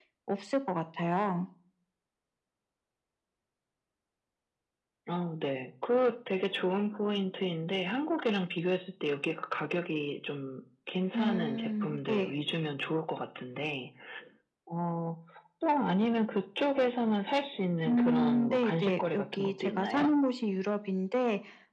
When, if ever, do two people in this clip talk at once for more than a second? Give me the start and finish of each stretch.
11.1-12.3, 17.9-20.1

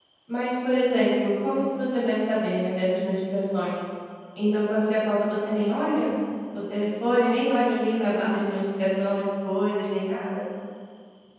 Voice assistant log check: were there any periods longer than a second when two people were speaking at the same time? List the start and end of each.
none

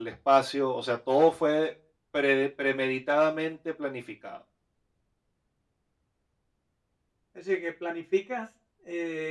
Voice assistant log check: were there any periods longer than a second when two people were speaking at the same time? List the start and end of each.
none

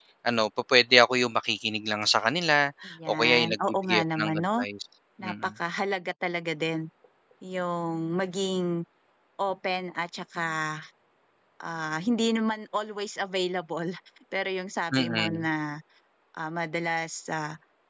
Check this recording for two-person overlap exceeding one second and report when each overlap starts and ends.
3.1-4.5

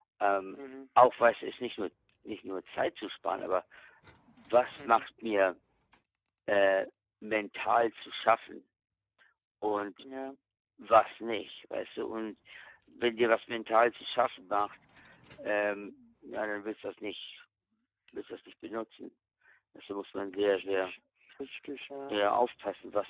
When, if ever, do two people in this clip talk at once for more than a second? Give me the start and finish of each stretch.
none

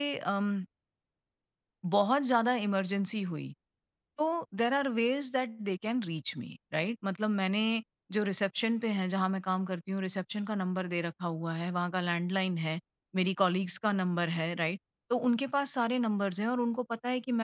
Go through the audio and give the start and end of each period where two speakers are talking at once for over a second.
none

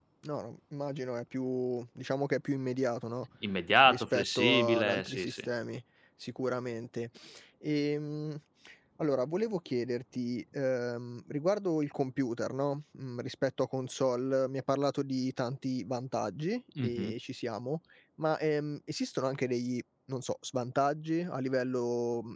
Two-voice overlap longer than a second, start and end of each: 3.9-5.4

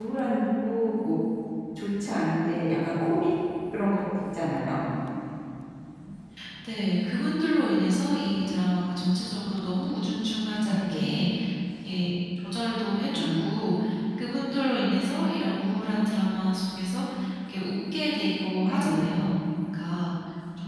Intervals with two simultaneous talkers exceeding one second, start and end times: none

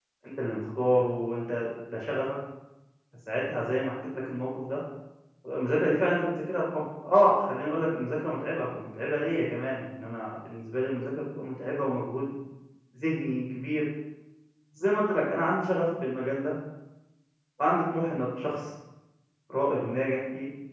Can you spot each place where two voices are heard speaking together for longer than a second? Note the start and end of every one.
none

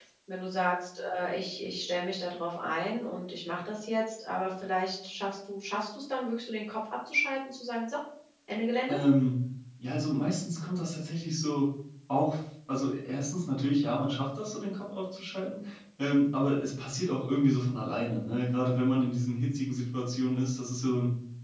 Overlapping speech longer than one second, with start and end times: none

